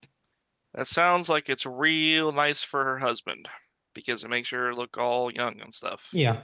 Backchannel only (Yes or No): No